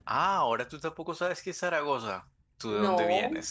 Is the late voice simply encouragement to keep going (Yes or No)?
Yes